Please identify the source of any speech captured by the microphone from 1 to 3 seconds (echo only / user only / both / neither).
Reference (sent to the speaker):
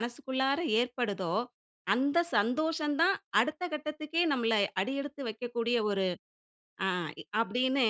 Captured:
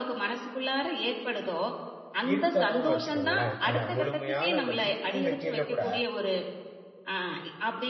both